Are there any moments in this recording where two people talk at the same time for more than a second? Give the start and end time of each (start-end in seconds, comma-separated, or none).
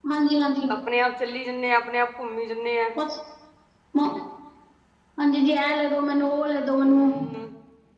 none